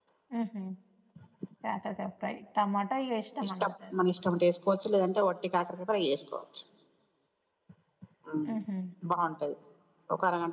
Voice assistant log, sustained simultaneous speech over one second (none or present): none